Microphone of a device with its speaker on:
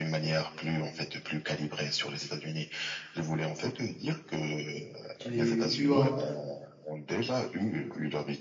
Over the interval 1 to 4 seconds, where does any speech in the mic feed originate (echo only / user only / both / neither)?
echo only